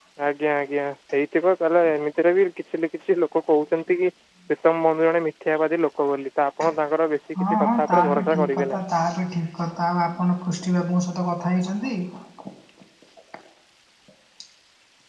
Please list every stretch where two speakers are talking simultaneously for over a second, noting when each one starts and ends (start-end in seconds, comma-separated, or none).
7.4-8.8